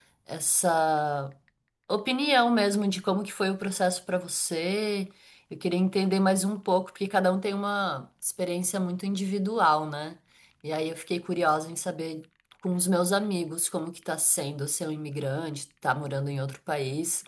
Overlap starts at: none

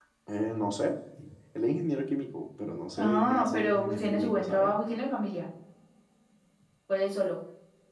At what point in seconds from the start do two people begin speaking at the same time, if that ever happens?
3.0 s

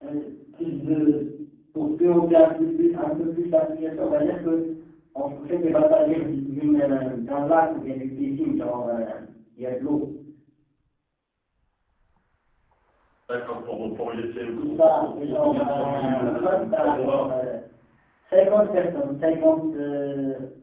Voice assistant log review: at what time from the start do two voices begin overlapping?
14.6 s

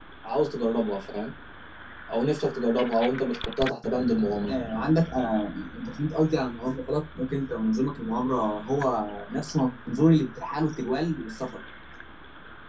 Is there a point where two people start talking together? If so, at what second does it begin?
none

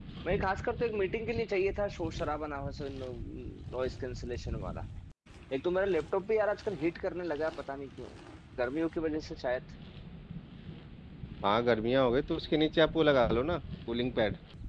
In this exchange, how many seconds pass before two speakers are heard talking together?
none

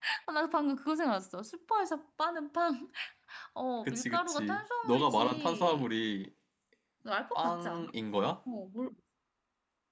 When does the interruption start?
3.8 s

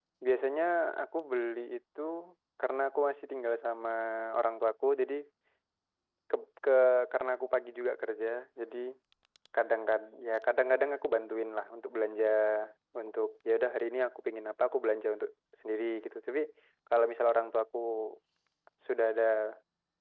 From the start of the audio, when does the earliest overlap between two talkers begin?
none

